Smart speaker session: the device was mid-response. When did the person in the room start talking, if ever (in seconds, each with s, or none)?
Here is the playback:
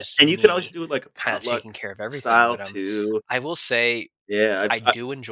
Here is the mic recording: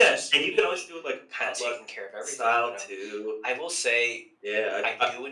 none